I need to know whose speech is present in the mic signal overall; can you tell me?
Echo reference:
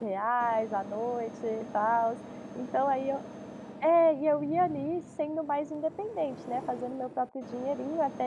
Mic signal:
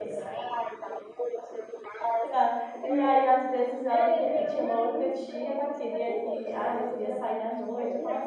both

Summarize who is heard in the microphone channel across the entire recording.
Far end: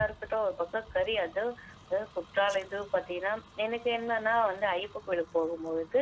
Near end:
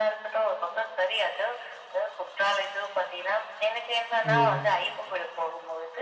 both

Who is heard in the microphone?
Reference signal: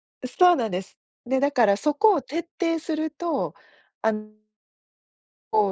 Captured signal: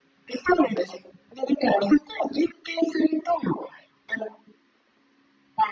echo only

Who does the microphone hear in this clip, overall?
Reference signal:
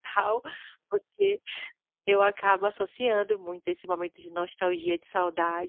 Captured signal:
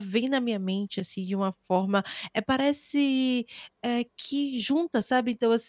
user only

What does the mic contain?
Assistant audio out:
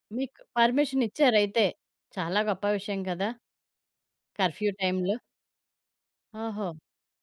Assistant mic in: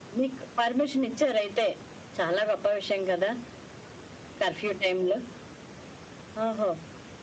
echo only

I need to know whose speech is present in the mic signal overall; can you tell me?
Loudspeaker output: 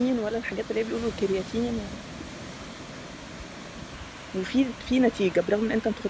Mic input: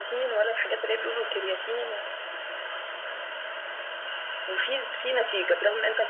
echo only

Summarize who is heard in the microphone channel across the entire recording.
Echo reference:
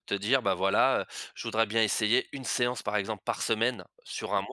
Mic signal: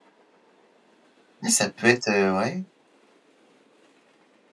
user only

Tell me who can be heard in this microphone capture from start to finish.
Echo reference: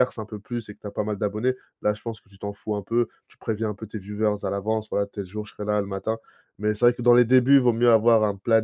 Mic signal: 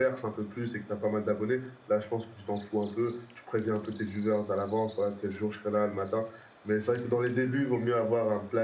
echo only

